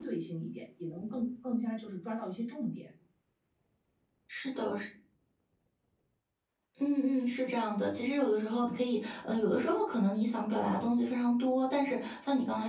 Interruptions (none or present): none